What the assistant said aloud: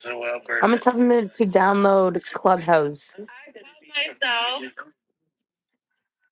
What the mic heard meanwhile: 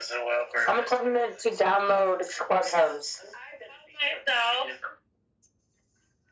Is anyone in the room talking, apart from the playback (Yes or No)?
No